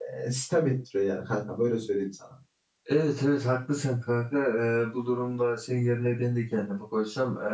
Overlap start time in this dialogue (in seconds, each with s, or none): none